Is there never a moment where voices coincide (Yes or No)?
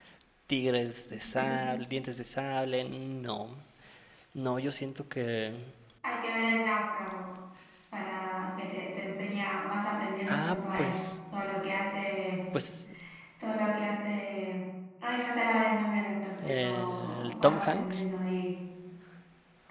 No